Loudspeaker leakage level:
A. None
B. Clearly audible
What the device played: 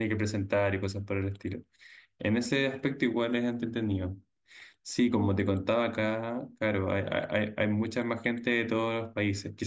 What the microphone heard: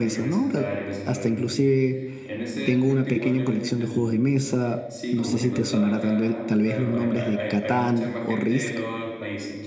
B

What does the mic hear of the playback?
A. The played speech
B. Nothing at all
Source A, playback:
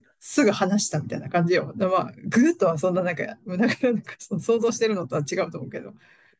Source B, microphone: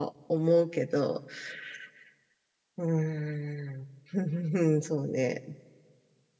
B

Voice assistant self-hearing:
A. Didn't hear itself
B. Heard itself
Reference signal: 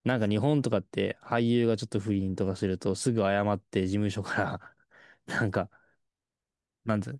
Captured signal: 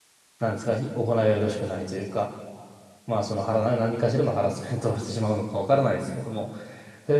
A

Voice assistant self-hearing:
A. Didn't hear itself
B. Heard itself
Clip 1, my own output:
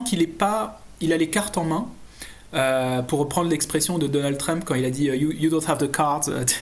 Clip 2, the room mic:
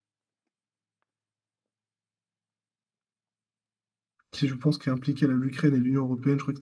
A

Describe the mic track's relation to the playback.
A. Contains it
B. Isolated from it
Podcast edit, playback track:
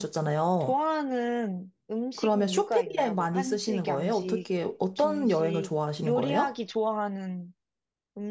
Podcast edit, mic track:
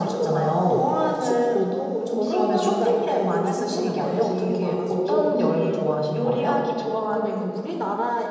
A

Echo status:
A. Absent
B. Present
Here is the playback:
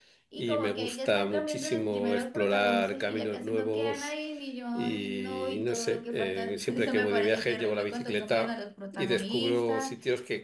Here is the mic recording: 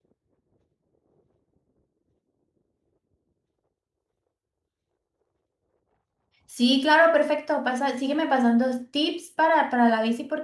A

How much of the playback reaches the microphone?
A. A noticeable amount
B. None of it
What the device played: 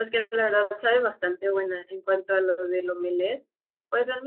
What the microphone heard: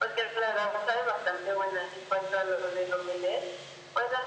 A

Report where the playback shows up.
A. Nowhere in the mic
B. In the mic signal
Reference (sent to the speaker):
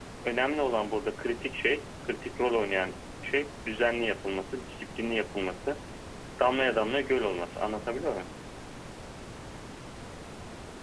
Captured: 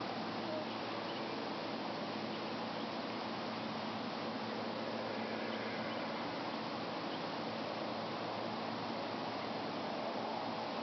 A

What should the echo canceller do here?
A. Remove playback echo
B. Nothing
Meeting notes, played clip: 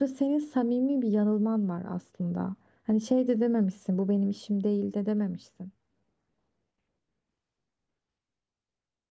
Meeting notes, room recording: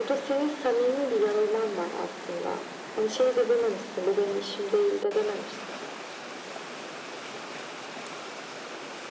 A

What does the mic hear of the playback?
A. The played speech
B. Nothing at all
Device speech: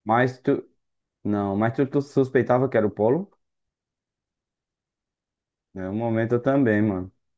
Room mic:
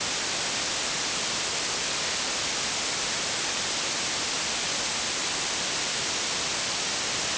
B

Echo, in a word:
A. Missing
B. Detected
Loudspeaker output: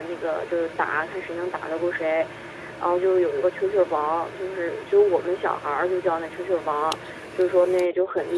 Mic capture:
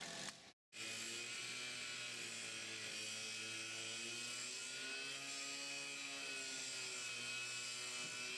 A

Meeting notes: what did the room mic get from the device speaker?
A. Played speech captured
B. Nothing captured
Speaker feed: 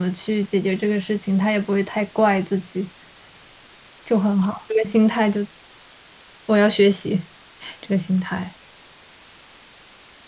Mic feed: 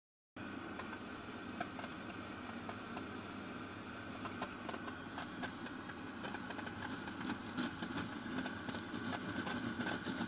B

